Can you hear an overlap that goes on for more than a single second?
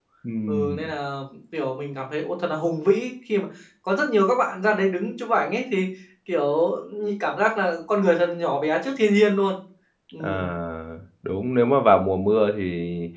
No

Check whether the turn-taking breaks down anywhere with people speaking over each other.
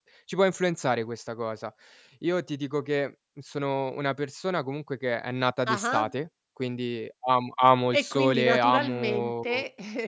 Yes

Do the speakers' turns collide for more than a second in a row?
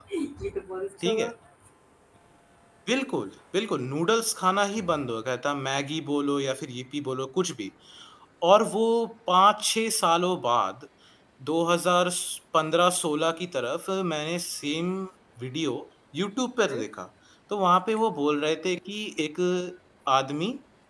No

